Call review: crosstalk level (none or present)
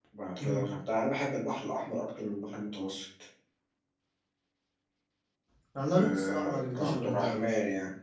present